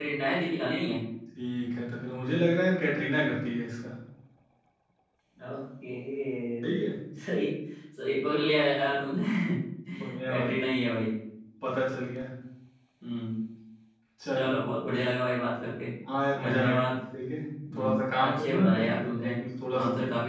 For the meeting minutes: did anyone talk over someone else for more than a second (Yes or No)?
Yes